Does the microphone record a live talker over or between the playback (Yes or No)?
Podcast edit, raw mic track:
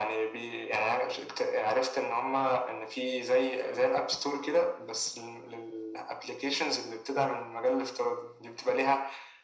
No